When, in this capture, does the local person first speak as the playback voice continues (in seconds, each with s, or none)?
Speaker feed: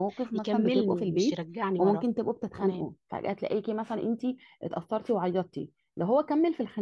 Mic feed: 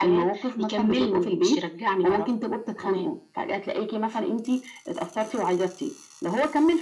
none